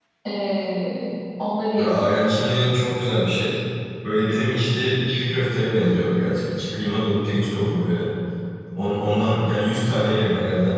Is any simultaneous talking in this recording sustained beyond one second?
No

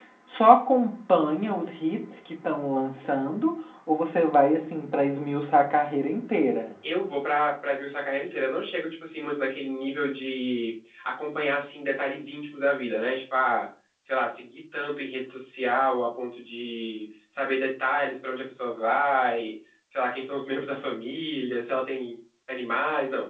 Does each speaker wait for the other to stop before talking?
Yes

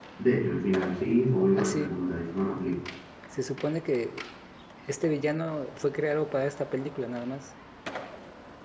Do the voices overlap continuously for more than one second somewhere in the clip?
No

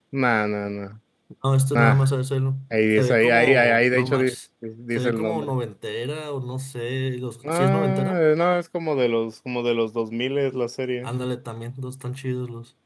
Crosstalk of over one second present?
Yes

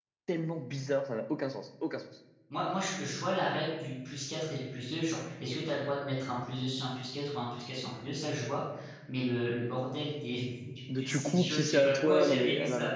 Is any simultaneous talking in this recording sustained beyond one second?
Yes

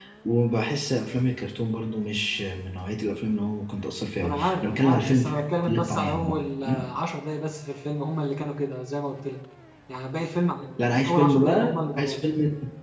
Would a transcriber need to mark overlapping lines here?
Yes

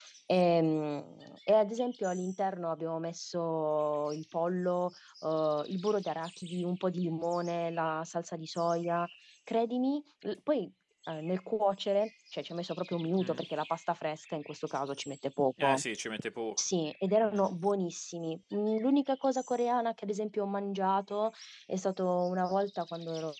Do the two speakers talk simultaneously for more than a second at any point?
No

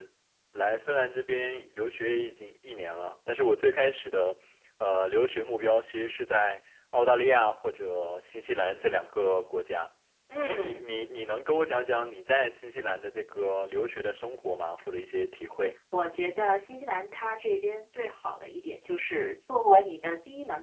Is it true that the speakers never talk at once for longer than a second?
Yes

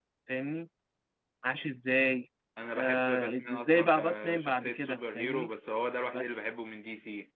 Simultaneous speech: Yes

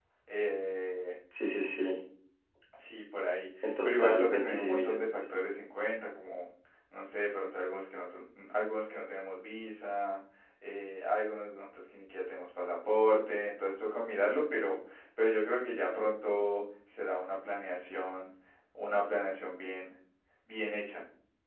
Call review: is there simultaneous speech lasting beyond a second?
Yes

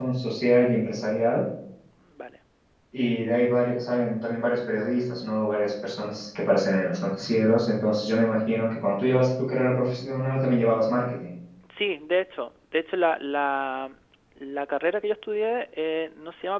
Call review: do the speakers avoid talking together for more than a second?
Yes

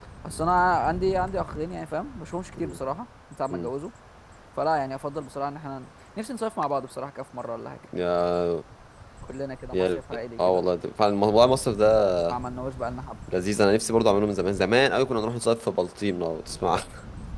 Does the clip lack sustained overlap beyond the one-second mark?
Yes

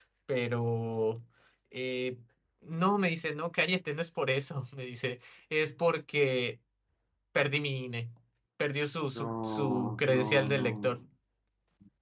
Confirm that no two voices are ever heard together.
No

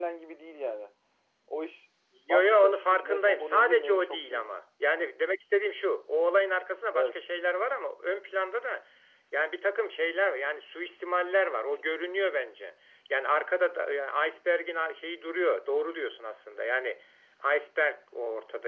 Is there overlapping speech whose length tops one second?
Yes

